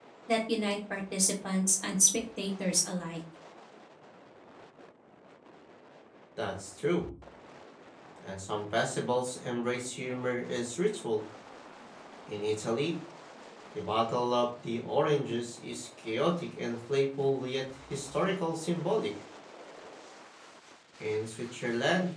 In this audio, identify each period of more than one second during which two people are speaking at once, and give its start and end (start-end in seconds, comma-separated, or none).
none